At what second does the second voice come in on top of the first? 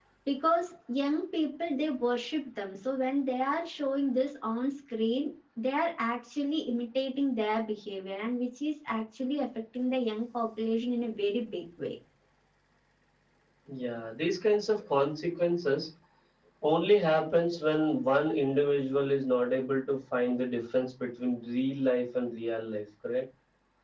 none

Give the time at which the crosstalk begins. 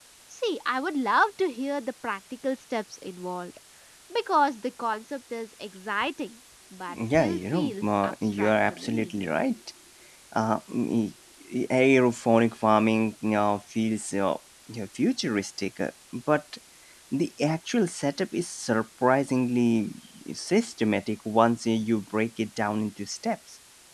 6.9 s

